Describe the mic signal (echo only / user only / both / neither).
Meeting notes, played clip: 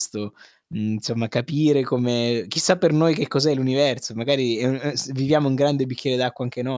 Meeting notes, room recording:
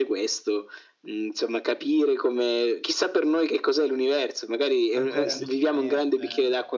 both